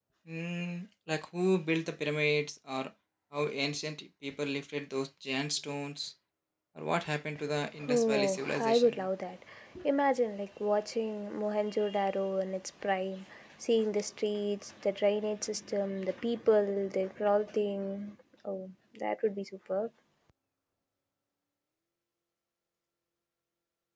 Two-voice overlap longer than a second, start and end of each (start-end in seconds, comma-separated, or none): 7.9-9.1